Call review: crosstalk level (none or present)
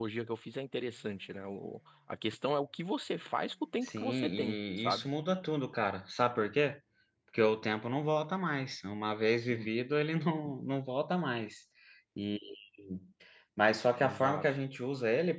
present